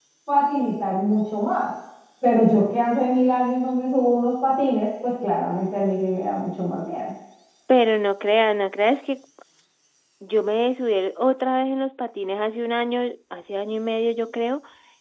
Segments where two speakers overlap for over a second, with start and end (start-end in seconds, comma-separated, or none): none